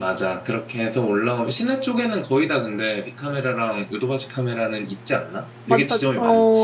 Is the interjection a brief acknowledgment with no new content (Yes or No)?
No